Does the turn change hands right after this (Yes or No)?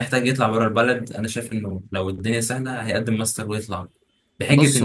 No